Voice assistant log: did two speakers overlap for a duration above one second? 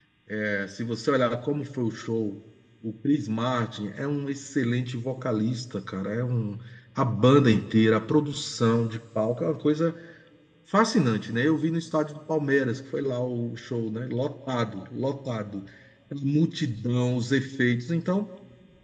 No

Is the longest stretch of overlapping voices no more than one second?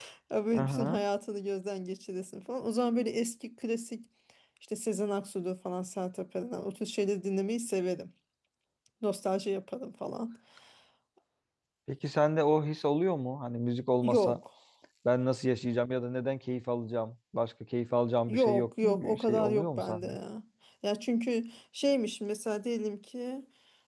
No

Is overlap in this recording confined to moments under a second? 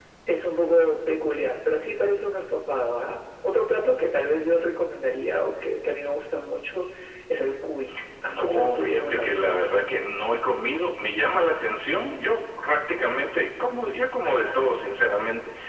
No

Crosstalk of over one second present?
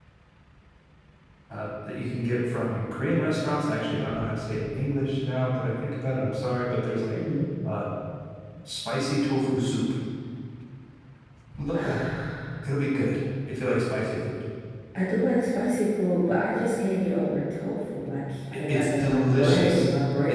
Yes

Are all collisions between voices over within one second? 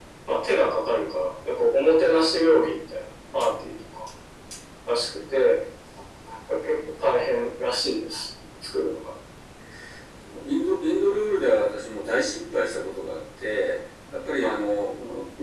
Yes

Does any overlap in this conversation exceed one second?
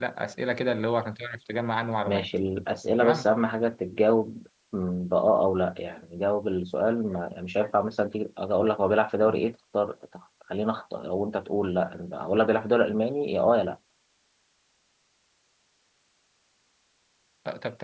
No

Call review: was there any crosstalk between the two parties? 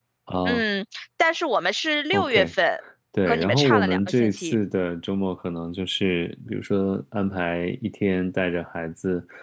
Yes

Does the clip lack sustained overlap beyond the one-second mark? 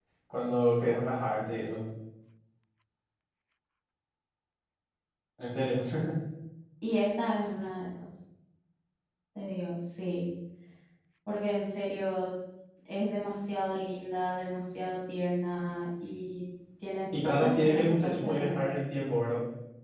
No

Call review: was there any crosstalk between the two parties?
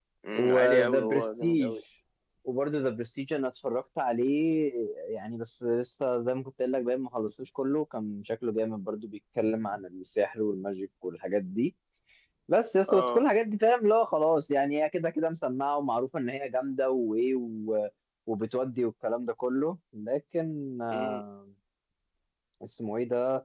Yes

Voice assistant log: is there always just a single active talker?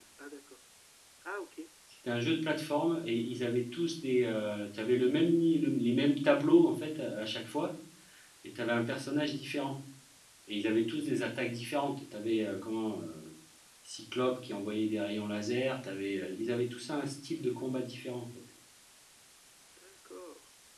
Yes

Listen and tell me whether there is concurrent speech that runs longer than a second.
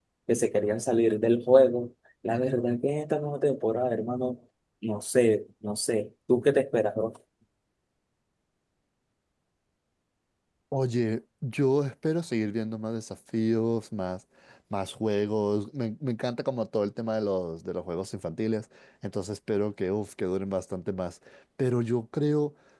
No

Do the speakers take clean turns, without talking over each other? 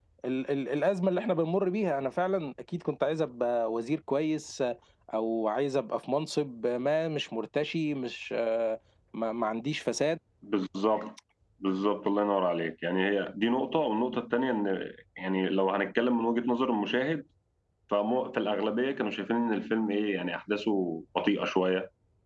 Yes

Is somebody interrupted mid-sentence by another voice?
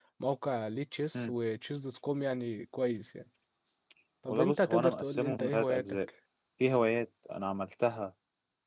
Yes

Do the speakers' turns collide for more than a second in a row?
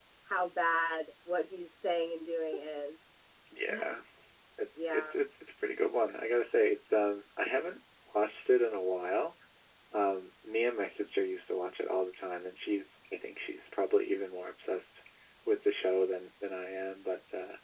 No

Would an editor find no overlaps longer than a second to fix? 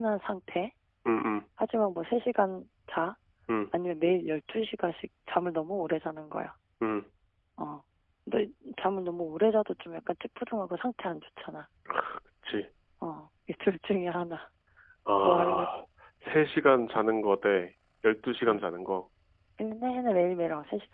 Yes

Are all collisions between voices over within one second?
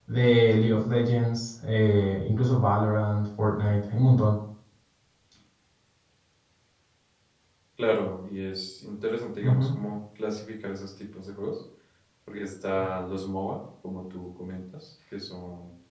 Yes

